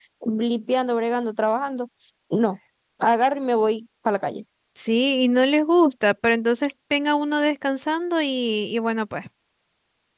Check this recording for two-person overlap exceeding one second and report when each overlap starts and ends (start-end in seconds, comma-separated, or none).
none